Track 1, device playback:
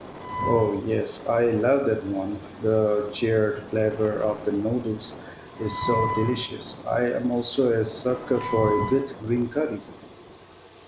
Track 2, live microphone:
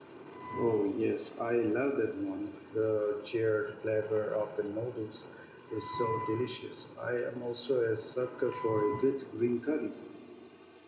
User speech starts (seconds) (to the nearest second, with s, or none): none